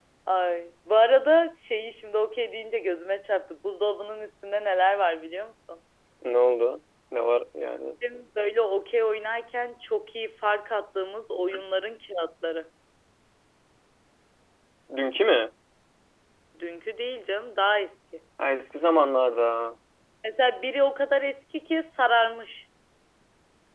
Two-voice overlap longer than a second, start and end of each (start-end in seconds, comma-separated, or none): none